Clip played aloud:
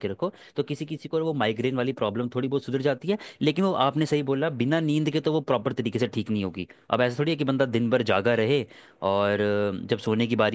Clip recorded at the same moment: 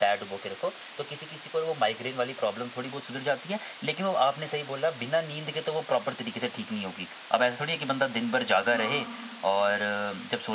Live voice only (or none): हाँ